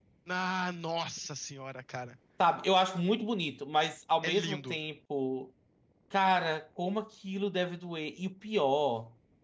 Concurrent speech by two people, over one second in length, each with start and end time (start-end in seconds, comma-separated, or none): none